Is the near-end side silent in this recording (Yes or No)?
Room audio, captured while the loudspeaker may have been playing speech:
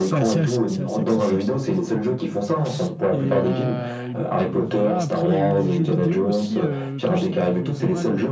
No